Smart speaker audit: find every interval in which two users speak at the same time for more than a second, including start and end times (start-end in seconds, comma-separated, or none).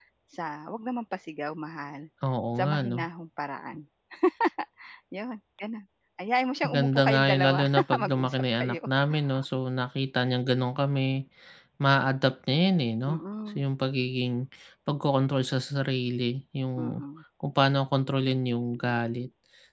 6.6-8.8